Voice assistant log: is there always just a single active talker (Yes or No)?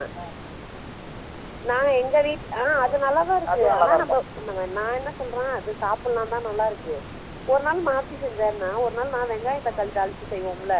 No